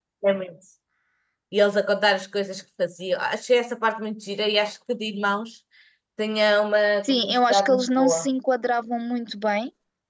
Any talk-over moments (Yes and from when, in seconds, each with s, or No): Yes, from 7.0 s